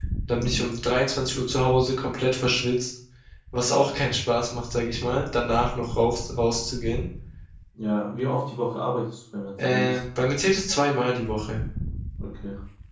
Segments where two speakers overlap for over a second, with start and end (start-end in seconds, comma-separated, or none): none